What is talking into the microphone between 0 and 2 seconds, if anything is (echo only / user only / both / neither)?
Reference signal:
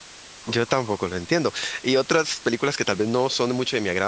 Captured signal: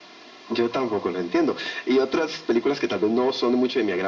echo only